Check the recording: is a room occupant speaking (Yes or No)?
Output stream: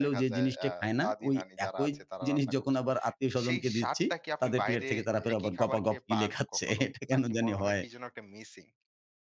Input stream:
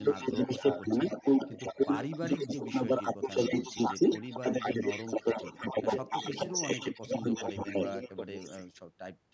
Yes